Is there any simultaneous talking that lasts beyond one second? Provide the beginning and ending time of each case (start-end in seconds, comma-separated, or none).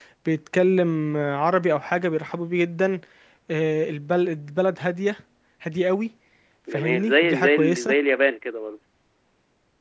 6.7-7.9